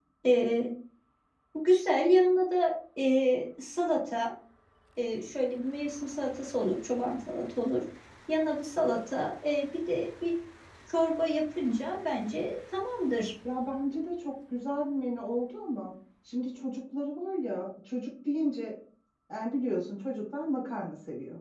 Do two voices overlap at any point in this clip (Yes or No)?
No